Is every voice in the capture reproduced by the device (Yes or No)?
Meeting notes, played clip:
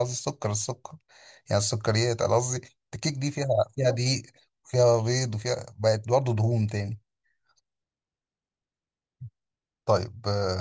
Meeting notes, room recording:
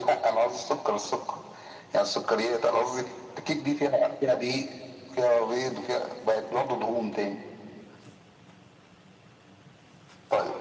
Yes